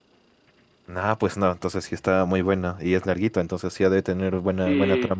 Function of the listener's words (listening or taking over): taking over